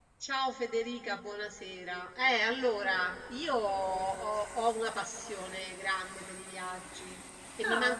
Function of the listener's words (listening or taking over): listening